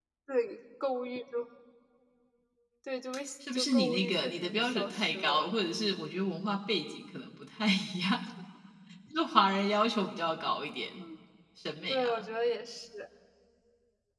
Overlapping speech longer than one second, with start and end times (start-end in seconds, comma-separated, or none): 3.5-5.5